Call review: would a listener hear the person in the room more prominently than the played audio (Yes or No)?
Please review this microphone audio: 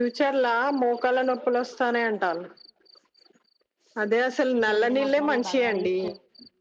No